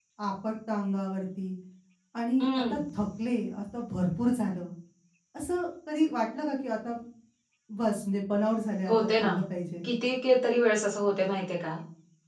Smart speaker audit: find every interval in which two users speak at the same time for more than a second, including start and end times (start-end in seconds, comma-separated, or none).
none